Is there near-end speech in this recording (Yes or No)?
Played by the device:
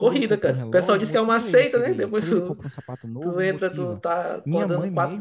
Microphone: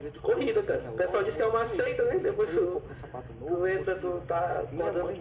No